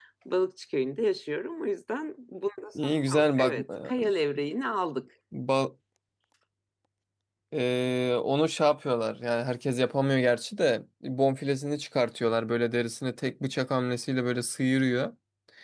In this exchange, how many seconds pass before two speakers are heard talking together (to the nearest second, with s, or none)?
3 s